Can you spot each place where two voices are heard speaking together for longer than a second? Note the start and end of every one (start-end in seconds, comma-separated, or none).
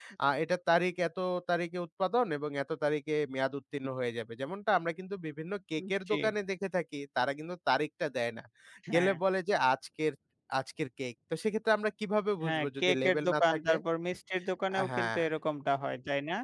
12.4-13.7